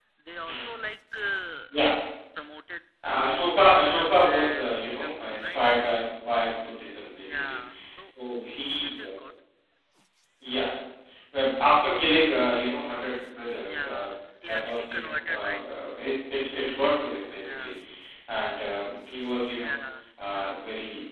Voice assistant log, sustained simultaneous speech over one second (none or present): present